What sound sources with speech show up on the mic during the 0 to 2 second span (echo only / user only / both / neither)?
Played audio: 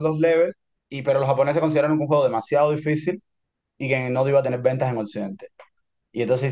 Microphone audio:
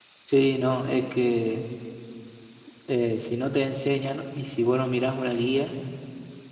user only